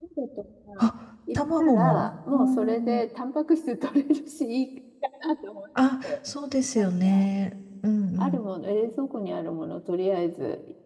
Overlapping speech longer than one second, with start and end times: 1.4-3.0

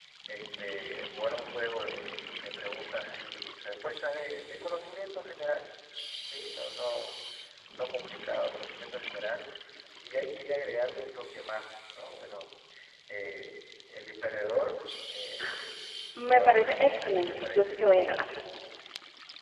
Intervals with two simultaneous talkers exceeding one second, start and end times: 16.4-17.8

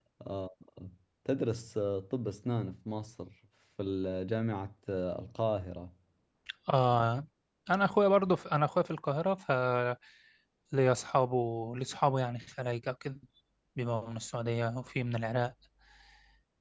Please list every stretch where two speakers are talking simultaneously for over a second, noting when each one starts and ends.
none

